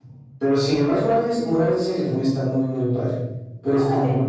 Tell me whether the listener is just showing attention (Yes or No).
No